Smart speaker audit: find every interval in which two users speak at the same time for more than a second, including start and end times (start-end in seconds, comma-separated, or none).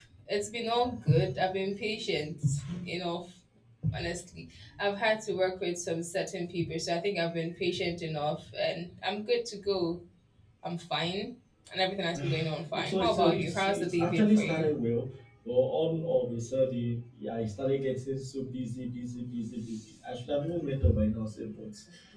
12.7-14.7